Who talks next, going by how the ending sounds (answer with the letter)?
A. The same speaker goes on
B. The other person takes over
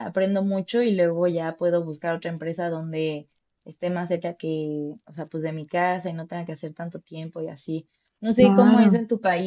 A